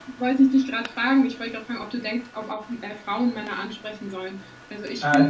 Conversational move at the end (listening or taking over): taking over